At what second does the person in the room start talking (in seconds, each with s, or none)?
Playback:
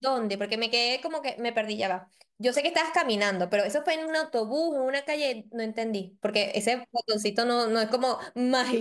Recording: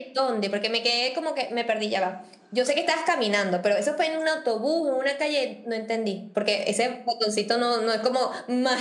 none